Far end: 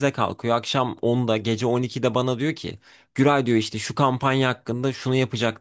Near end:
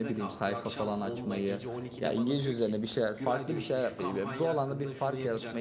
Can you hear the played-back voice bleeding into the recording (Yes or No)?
Yes